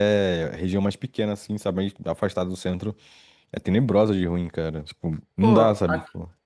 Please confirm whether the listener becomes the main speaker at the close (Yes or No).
Yes